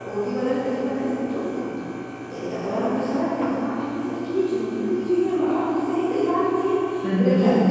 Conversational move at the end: listening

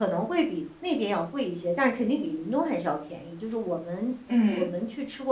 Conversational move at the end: listening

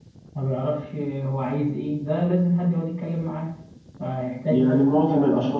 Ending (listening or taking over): taking over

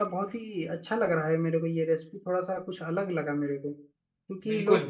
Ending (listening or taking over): listening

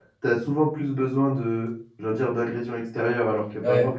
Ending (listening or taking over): listening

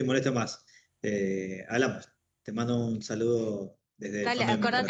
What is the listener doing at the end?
taking over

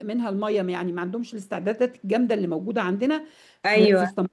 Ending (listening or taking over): listening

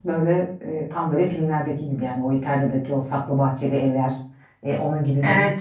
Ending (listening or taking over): taking over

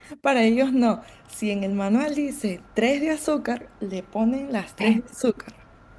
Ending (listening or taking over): listening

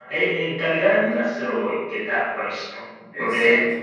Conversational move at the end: listening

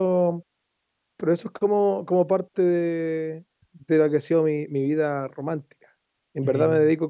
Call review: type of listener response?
listening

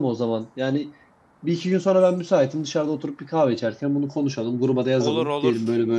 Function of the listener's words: listening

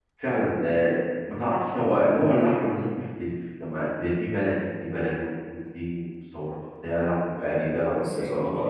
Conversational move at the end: taking over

